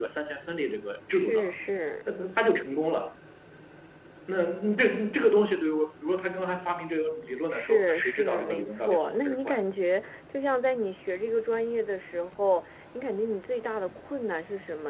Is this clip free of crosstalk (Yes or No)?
No